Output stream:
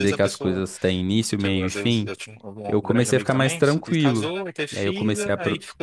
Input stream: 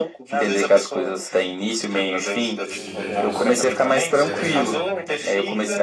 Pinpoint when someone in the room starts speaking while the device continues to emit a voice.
2.6 s

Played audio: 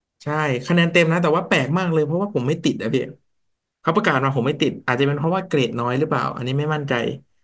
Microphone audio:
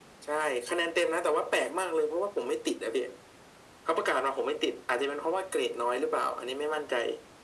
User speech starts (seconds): none

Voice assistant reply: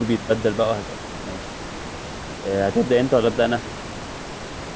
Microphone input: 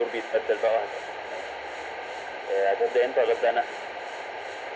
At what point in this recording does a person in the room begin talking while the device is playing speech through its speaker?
none

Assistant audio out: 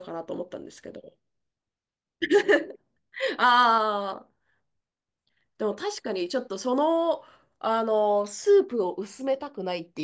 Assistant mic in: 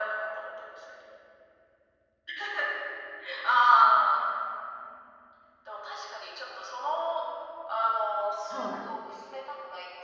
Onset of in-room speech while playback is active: 8.5 s

